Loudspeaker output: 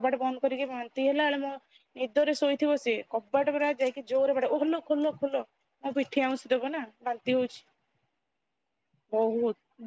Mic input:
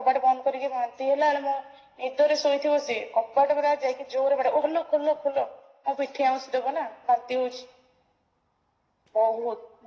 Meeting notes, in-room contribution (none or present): none